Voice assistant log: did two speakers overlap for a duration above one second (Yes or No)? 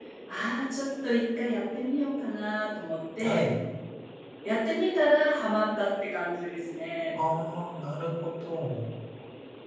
No